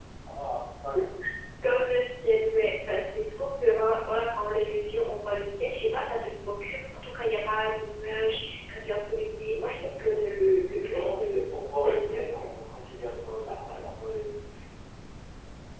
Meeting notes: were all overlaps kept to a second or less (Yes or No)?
No